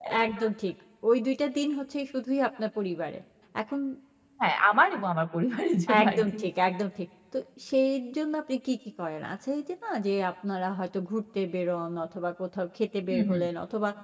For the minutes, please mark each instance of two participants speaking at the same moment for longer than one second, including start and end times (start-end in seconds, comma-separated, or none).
none